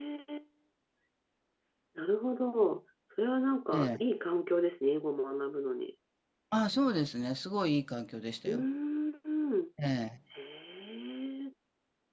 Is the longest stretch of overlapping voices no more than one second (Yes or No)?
Yes